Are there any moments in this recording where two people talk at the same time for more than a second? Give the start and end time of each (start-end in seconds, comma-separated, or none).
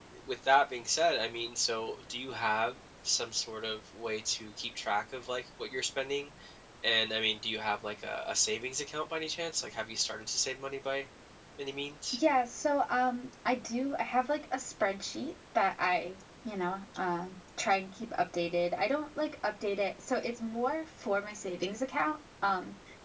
none